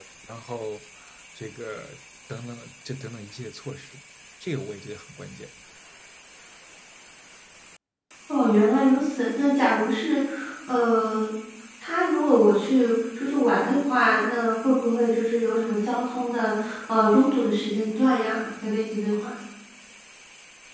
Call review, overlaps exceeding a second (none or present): none